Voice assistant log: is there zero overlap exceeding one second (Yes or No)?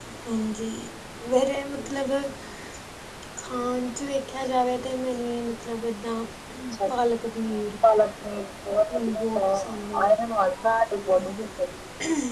No